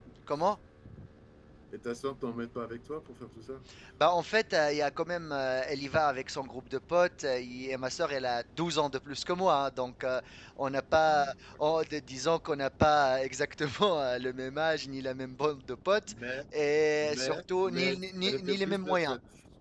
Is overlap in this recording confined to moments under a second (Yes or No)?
No